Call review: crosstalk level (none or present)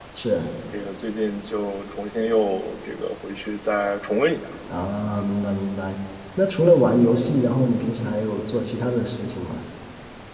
none